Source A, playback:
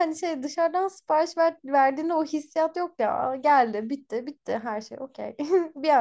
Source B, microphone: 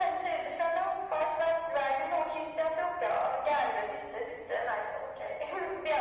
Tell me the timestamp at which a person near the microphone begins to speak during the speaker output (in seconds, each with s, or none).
none